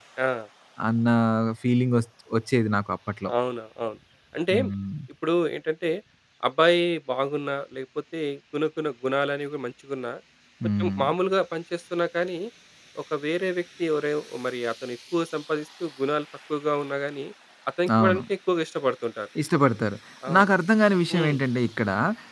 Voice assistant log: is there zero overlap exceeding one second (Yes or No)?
Yes